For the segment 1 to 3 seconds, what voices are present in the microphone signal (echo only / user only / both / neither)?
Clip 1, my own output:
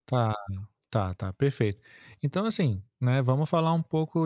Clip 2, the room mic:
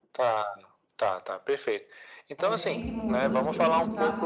both